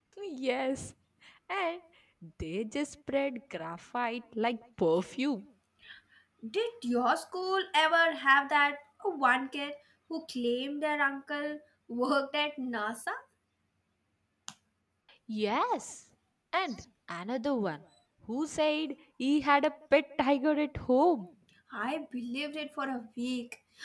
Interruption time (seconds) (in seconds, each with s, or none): none